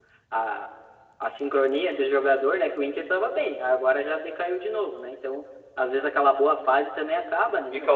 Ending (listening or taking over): taking over